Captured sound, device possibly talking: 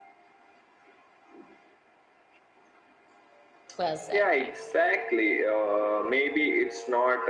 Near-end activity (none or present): present